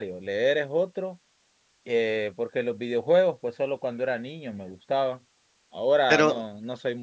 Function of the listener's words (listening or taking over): listening